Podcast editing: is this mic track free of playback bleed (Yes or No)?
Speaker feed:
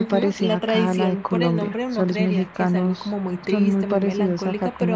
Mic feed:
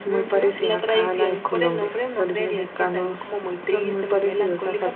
No